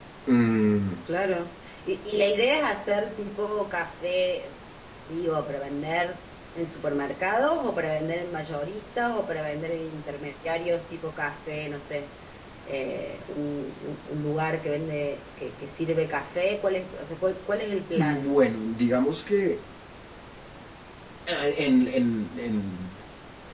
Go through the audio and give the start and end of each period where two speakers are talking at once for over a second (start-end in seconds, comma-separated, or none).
none